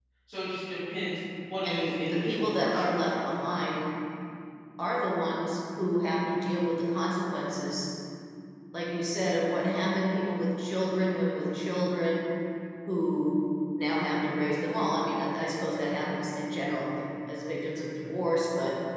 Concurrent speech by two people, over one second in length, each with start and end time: 1.6-3.3

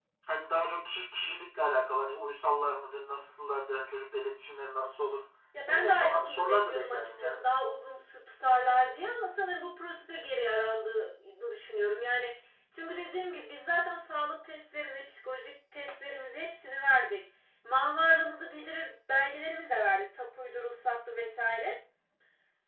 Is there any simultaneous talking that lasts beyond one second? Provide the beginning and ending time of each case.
5.7-7.4

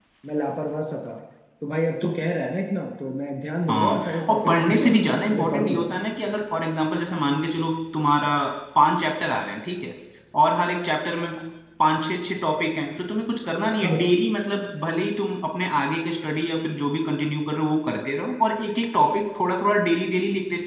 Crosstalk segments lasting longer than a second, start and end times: 3.7-4.9

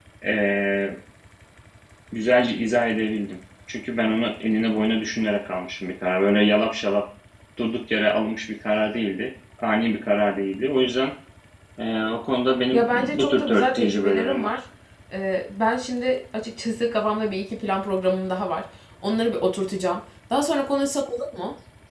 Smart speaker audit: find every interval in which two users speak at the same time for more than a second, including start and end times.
12.7-14.6

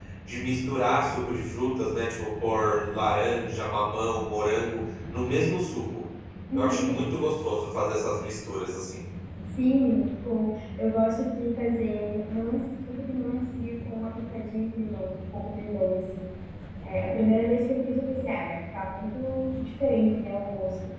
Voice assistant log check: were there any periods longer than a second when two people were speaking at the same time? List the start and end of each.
none

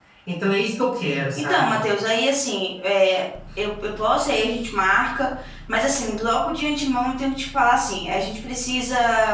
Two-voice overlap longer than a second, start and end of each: none

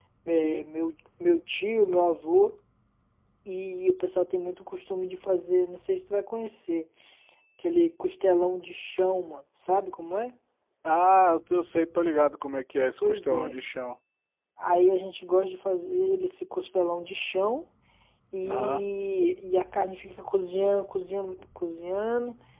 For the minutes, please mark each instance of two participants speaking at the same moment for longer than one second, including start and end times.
none

